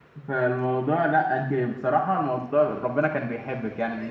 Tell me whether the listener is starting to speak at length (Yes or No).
Yes